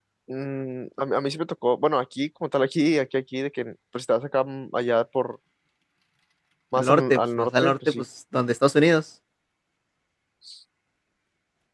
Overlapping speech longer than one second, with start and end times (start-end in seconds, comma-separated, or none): 6.7-8.1